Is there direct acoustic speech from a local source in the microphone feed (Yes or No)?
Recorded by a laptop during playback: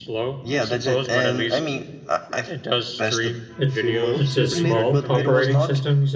Yes